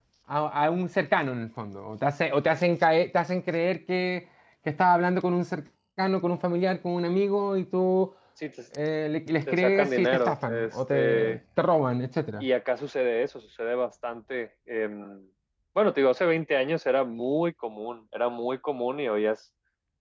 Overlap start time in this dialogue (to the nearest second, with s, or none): 9 s